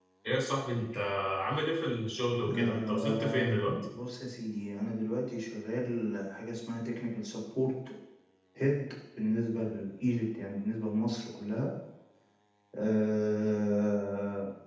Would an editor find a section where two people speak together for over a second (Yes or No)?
Yes